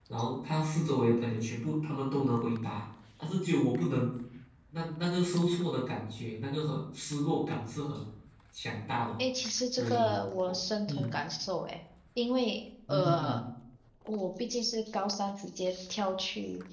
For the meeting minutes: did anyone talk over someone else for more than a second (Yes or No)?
No